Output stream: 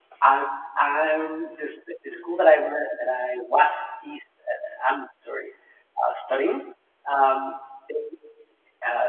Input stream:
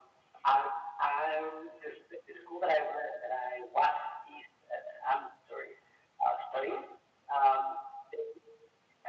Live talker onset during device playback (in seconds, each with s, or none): none